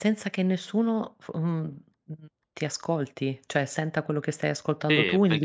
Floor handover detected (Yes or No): Yes